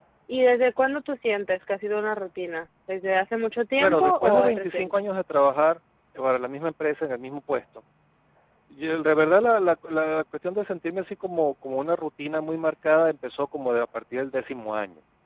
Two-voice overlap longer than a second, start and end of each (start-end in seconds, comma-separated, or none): 3.8-5.0